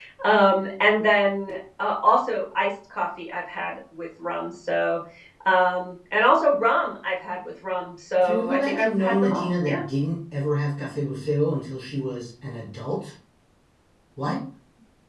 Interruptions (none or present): present